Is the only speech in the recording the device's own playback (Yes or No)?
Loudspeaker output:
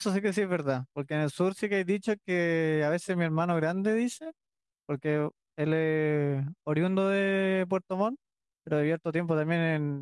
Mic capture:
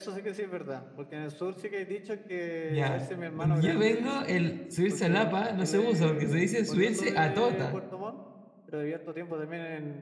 No